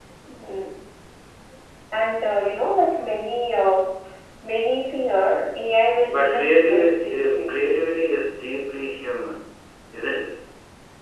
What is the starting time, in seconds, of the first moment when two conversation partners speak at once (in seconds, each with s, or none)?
6.1 s